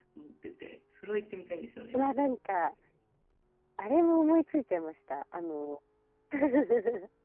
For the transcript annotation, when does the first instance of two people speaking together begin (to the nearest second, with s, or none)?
none